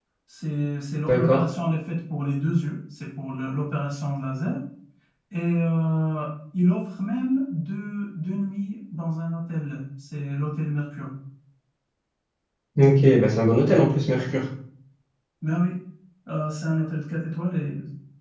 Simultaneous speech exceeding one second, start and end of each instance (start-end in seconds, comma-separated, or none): none